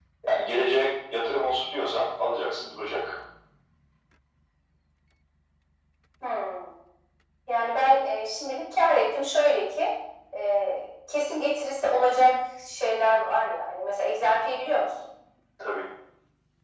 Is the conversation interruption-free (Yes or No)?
Yes